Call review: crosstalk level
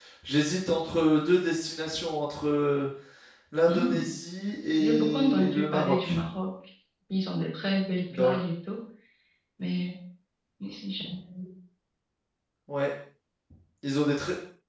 present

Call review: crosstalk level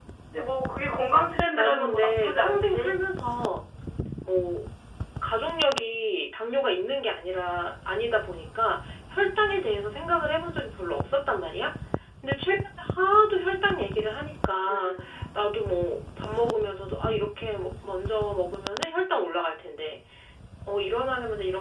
present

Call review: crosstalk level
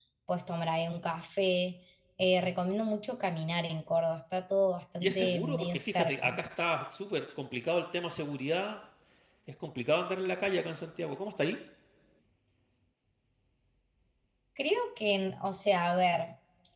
present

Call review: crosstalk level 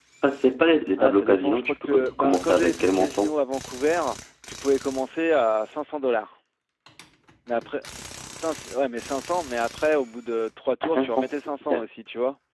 present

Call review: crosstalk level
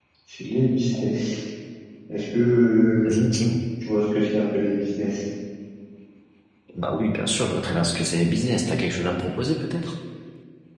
none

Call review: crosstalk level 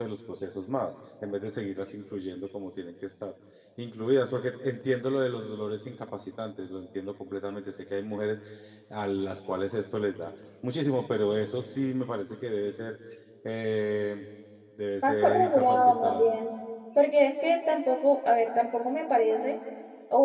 present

